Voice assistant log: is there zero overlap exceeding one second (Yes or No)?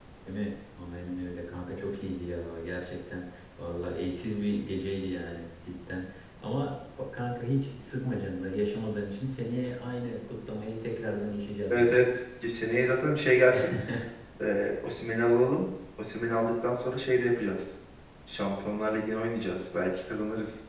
Yes